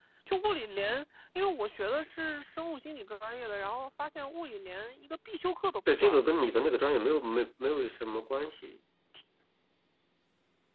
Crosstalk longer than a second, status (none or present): none